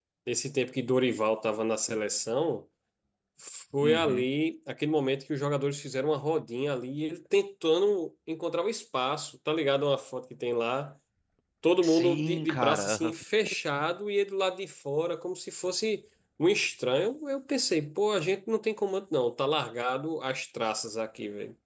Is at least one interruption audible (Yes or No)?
Yes